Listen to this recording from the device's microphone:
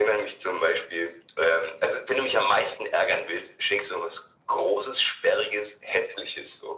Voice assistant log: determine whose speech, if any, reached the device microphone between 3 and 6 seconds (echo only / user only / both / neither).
echo only